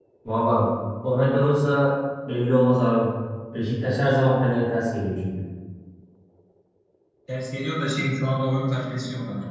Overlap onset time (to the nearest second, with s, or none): none